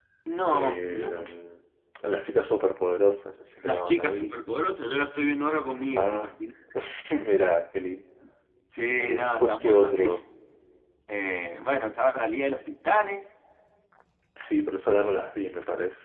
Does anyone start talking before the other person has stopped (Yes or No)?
Yes